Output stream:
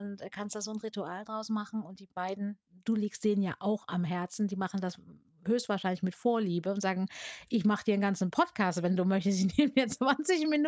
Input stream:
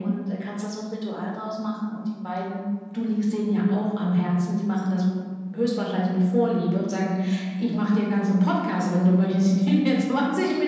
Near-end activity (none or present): none